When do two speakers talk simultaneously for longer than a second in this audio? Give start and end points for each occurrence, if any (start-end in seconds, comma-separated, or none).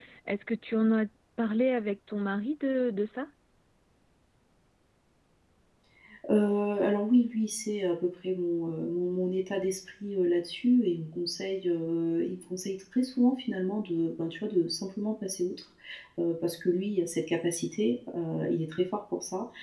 none